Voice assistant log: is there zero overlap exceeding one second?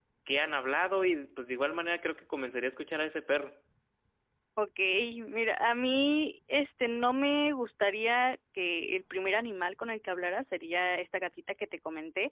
Yes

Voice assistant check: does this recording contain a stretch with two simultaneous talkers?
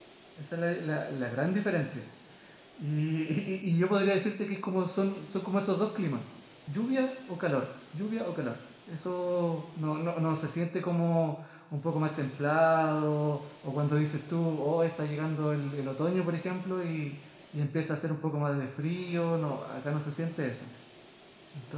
No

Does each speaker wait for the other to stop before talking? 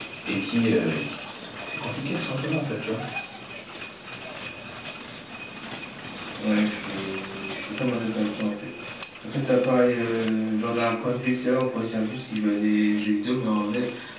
Yes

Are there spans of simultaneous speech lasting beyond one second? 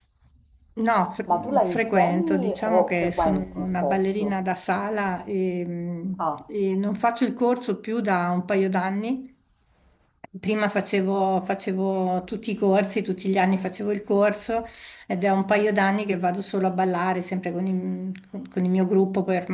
Yes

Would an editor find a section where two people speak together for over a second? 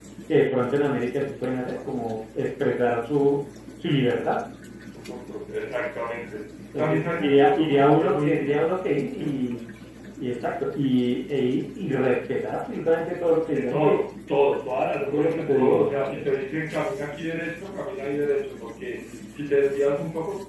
Yes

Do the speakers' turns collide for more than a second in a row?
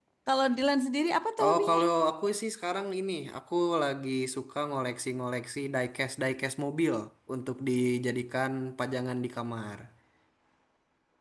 No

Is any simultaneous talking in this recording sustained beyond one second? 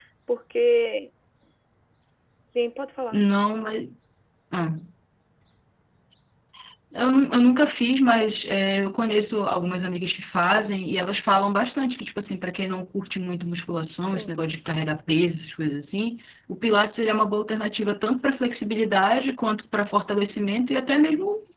No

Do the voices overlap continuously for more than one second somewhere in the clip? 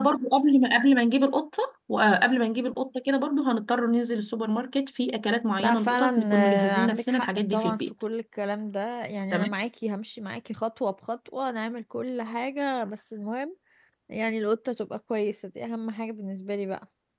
Yes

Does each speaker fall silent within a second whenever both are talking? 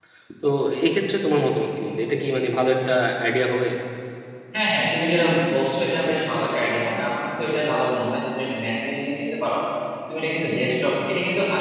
Yes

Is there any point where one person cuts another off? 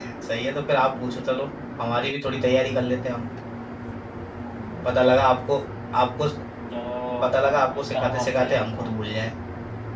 Yes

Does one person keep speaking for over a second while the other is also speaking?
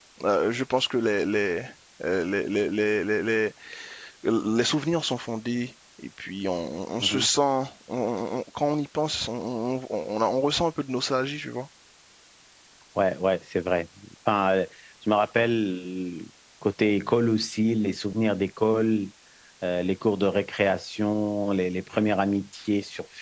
No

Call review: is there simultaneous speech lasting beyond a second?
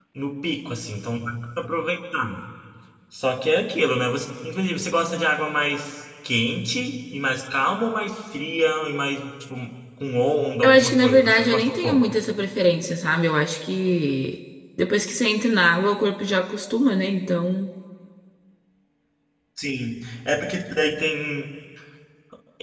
Yes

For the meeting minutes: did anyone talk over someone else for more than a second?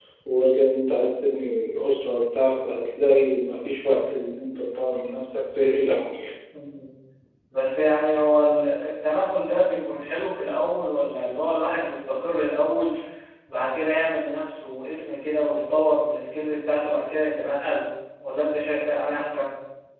No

